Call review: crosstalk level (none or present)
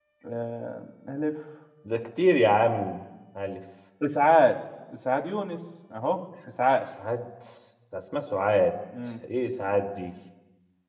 none